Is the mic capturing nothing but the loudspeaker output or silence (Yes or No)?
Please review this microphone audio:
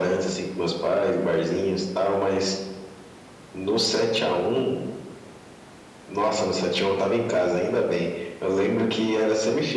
Yes